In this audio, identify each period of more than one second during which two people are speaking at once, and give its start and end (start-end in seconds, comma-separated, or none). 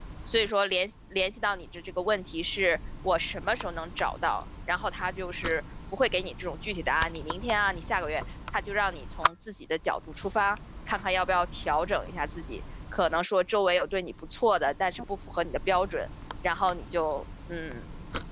none